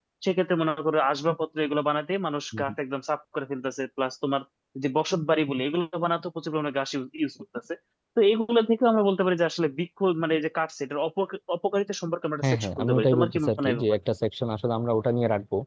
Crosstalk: present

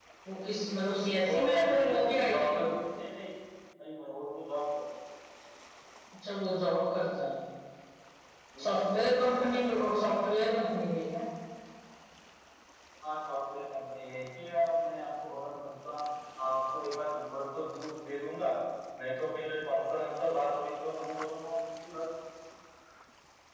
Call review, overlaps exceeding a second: present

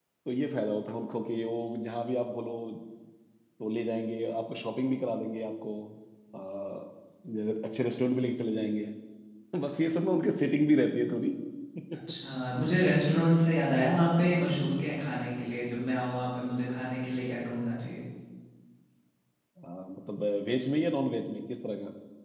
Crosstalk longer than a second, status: none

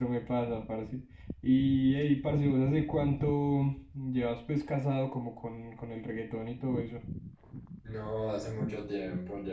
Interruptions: none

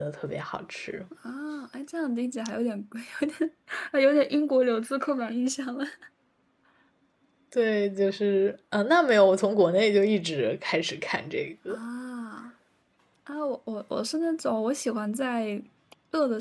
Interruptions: none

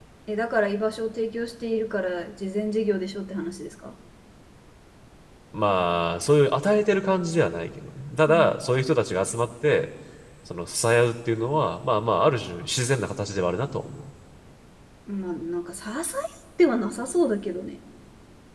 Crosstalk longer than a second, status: none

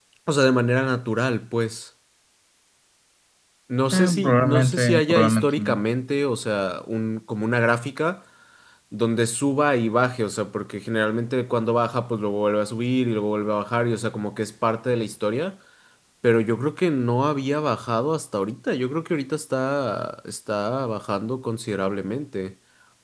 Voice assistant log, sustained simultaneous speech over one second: present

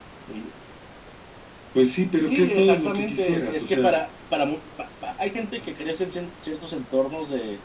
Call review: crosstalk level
present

